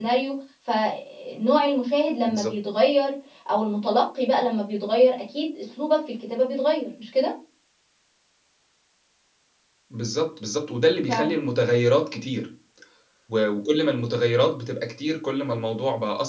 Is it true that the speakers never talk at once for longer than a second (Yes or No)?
Yes